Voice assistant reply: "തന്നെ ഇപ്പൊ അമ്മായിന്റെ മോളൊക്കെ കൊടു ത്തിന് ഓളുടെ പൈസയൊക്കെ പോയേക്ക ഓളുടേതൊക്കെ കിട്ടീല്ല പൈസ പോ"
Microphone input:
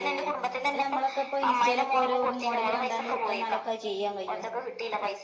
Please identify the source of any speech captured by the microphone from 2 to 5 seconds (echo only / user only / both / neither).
both